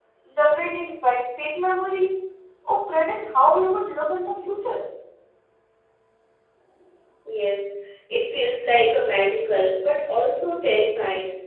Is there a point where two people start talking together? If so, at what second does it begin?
none

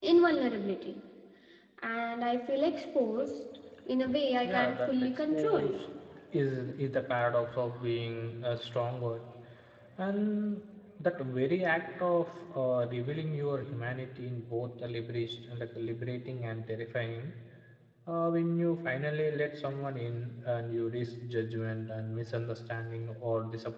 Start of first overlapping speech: 4.4 s

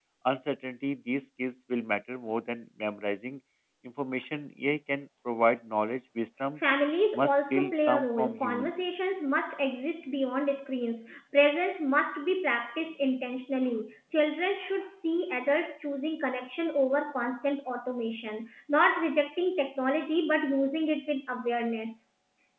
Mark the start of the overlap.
7.1 s

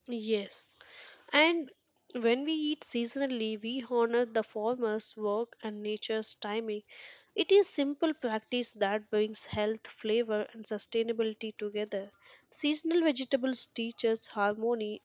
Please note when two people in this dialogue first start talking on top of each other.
none

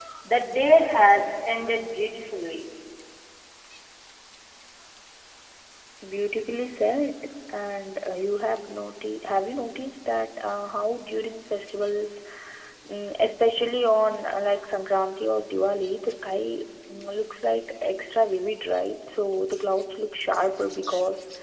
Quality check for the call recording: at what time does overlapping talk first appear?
none

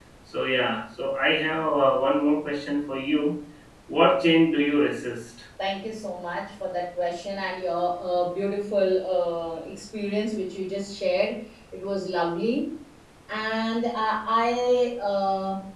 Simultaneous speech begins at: none

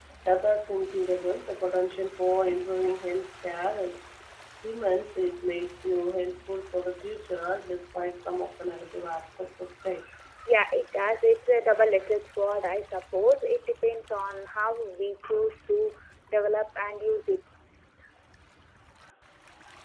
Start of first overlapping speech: none

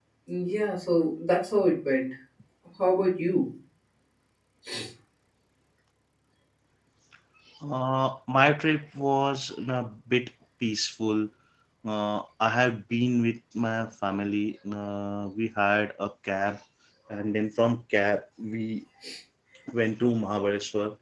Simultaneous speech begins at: none

